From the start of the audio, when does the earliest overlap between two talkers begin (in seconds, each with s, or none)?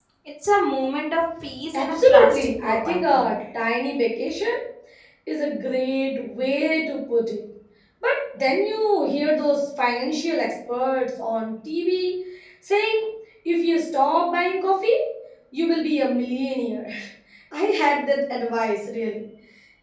1.7 s